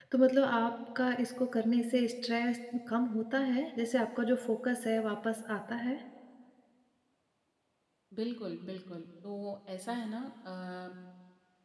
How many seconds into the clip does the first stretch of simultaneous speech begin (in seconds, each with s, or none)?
none